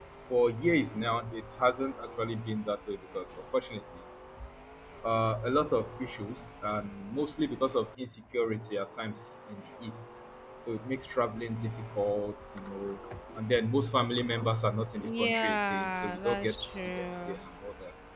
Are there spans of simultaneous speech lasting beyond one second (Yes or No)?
Yes